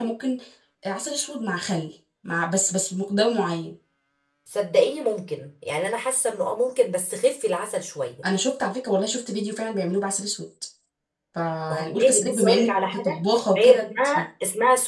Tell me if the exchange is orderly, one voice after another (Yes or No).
No